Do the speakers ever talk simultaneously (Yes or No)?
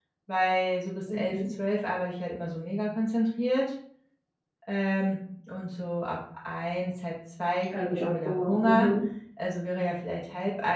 Yes